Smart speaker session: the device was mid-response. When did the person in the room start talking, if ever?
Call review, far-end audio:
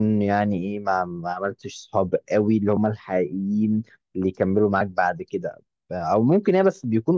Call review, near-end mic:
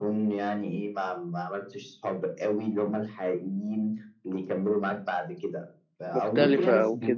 6.1 s

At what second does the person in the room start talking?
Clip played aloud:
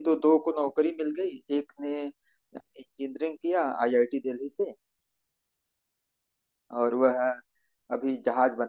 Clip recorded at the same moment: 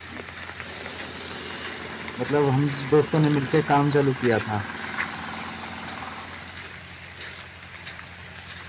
2.2 s

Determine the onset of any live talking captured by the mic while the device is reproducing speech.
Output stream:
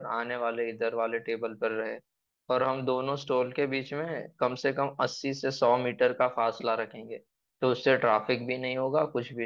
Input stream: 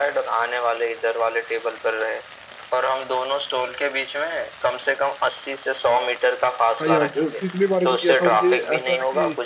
6.8 s

